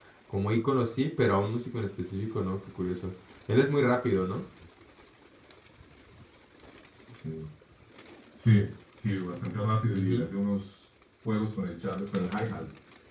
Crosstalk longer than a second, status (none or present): none